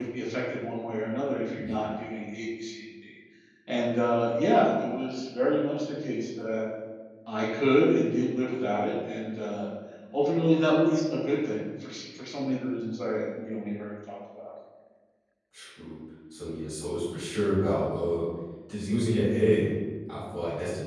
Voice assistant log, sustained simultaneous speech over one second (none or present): none